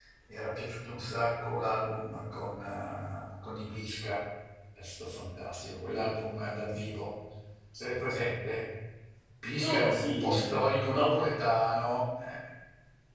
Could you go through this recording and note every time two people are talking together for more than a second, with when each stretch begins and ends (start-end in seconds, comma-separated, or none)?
9.6-11.2